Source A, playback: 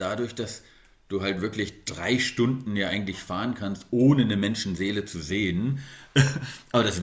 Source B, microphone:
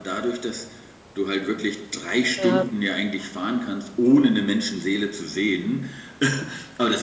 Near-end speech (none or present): present